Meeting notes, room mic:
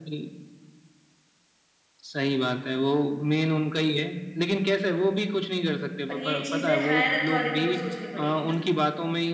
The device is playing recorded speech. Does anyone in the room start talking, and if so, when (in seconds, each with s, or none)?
6.1 s